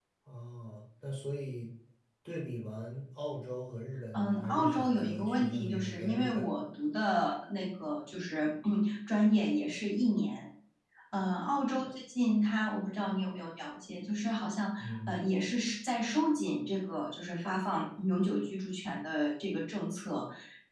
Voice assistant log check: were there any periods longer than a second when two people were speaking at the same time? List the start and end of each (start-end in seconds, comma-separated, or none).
4.1-6.4